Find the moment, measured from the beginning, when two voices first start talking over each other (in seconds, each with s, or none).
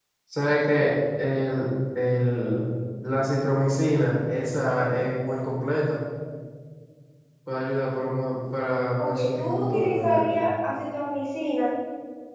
9.0 s